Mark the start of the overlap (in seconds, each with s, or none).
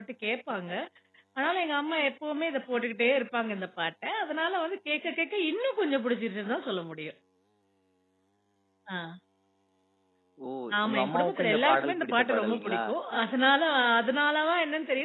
10.9 s